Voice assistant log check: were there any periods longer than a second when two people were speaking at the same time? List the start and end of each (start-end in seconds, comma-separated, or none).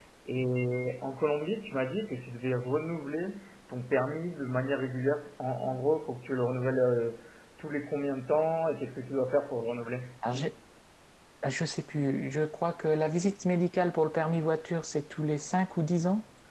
none